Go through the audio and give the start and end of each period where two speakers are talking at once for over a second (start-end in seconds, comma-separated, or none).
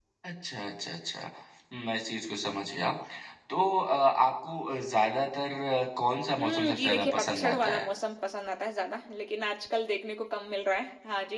6.4-7.8